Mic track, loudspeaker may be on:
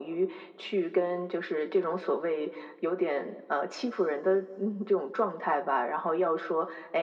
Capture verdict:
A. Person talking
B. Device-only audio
B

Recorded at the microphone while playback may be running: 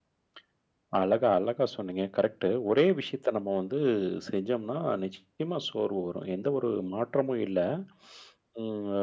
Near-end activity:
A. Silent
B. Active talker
A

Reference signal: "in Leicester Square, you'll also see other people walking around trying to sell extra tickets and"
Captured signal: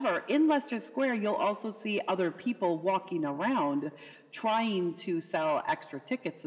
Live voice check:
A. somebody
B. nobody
B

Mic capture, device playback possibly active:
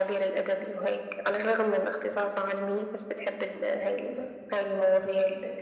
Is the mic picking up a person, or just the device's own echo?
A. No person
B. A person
A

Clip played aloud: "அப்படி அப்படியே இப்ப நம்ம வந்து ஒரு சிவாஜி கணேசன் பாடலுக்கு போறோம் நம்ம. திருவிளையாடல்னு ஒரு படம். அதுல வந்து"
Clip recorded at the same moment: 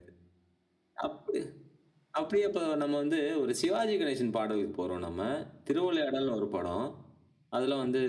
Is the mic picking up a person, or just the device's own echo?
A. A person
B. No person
B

